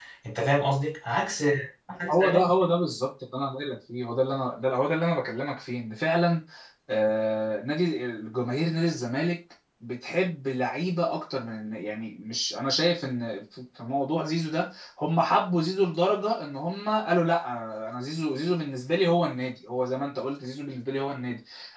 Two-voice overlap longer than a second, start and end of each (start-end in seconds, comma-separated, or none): none